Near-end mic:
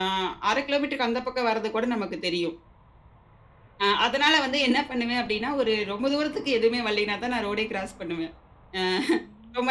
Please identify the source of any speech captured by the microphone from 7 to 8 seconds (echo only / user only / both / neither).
echo only